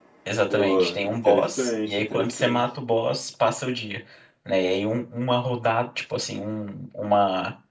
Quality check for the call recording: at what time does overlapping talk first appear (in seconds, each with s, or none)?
0.5 s